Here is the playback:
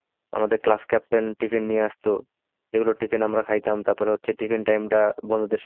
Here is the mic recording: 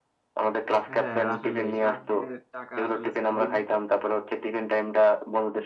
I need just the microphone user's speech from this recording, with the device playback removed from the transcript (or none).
হ্যাঁ আসলে সাত দিনের টাকা আসলে ছয় দিনে